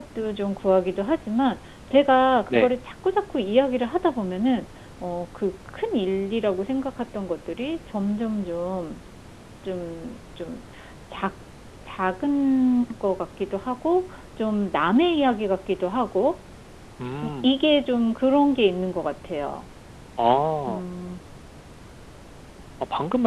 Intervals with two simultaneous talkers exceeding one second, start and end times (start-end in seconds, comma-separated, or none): none